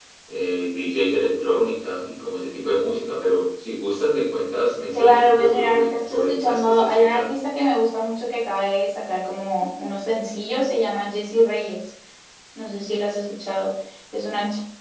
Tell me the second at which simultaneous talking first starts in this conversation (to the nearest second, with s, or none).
5 s